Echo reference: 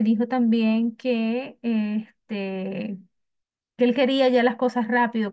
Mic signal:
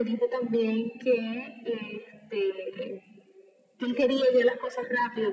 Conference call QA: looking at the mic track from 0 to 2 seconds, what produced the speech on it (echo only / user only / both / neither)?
echo only